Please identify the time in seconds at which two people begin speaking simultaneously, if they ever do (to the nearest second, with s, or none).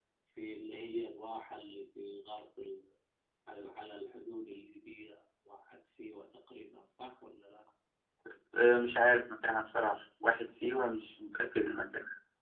none